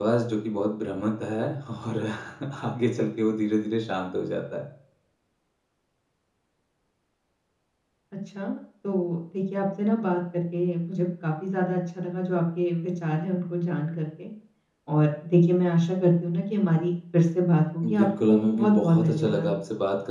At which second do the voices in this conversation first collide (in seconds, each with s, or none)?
17.8 s